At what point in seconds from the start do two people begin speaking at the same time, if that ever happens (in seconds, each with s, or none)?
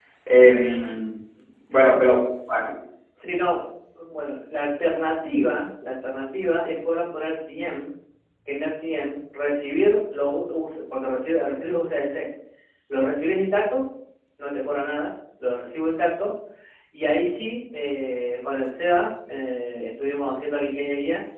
none